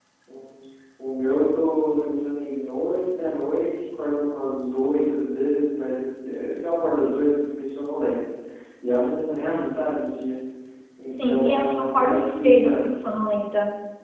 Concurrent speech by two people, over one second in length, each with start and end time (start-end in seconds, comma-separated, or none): 11.1-13.2